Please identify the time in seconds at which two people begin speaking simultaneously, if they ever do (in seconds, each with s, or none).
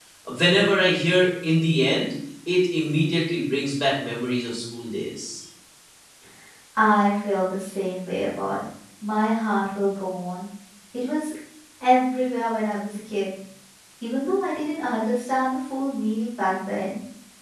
none